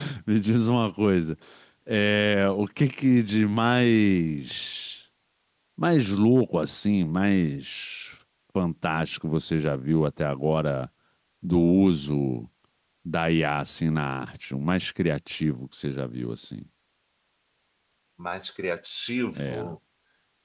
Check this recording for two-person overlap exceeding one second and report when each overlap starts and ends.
none

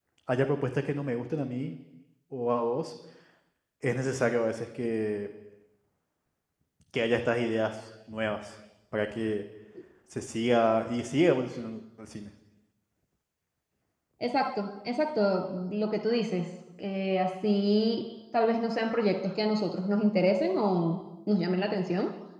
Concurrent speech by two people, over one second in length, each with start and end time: none

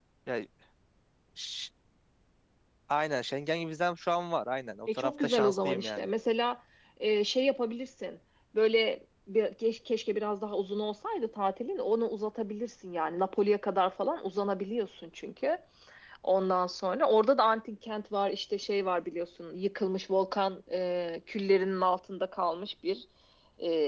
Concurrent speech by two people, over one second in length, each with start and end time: 4.9-6.1

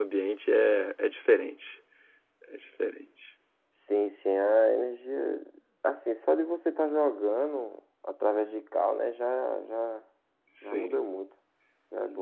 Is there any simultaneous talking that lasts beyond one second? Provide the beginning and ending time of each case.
none

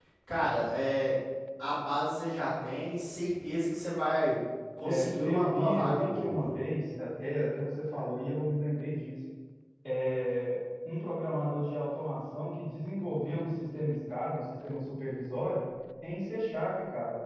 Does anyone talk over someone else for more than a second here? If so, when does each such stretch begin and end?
4.8-6.5

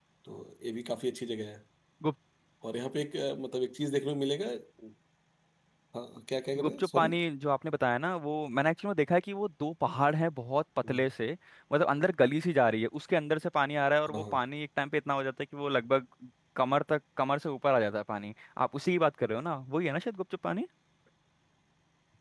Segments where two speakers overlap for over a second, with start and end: none

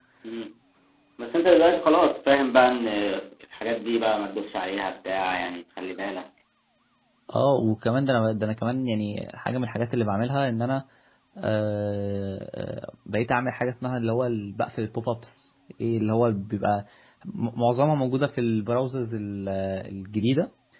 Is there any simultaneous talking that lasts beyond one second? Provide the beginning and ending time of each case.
none

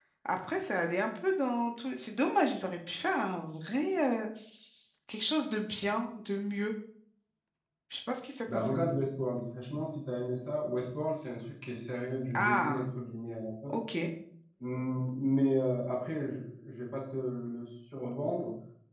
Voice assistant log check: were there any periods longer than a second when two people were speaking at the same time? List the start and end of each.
none

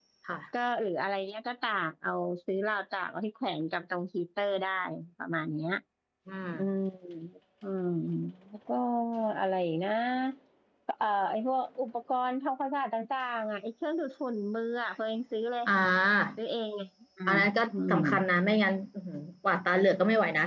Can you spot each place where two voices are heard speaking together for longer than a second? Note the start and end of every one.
none

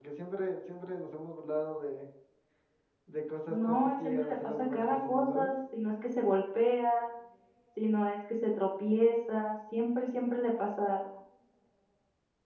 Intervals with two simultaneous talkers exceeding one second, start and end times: 3.5-5.5

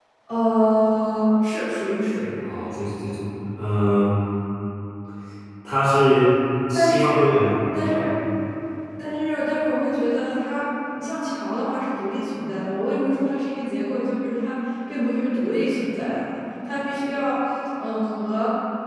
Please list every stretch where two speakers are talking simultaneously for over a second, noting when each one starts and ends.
none

